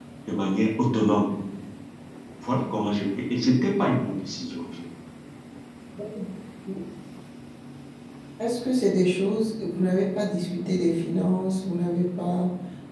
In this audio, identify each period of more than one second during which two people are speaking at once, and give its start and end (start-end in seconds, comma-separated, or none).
none